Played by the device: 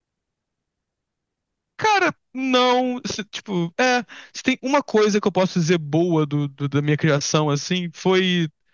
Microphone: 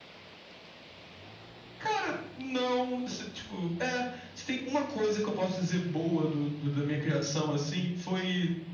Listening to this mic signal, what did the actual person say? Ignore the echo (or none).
none